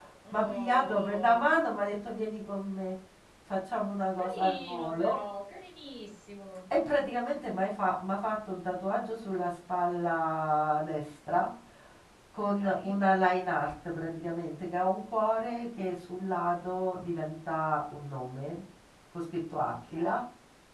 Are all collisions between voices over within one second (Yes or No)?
No